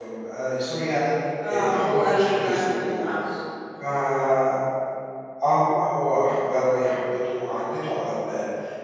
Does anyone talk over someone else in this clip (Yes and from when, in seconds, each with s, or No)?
Yes, from 1.4 s